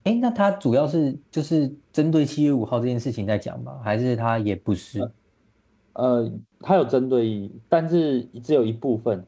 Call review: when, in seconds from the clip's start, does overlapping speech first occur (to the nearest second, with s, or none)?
none